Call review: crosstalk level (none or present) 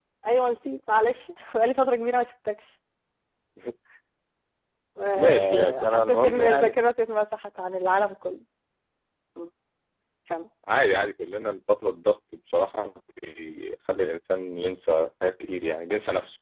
present